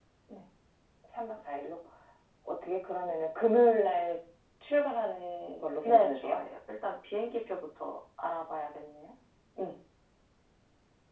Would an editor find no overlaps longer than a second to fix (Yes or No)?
Yes